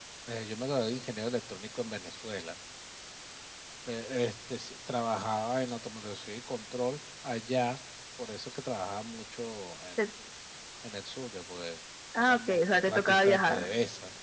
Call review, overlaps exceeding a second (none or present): present